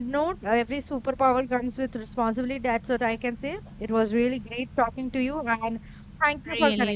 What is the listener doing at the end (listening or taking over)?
taking over